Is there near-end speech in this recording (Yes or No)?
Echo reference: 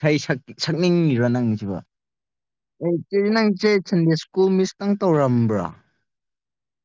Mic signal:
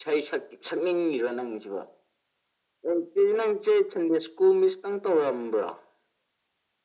No